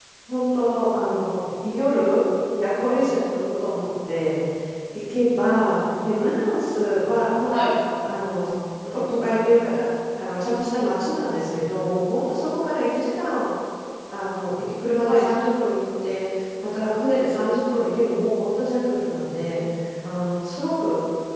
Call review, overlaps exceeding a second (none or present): none